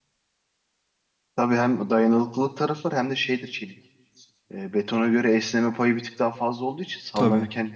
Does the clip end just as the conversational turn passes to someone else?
No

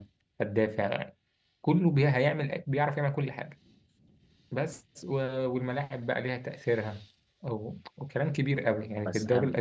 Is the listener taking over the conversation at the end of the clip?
No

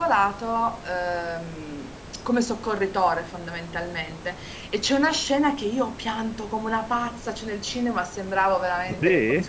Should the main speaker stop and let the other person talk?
No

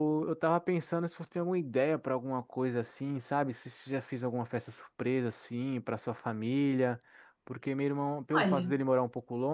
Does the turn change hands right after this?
No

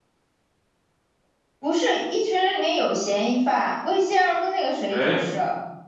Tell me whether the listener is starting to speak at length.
No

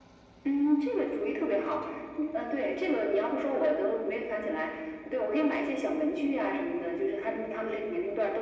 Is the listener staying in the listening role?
Yes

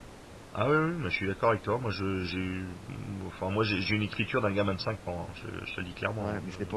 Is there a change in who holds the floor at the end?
Yes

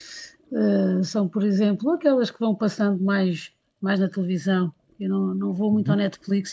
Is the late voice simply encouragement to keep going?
Yes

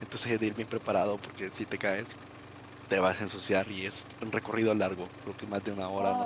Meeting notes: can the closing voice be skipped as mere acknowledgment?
Yes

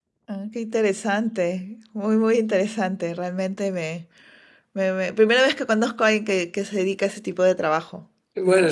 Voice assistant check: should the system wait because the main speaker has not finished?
No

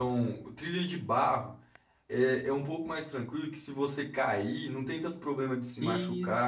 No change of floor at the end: Yes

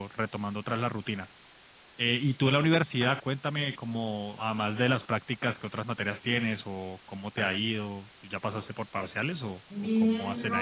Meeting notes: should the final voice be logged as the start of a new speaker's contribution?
Yes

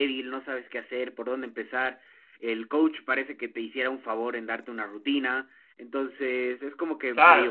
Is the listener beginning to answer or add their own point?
Yes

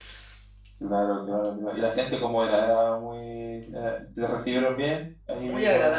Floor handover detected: Yes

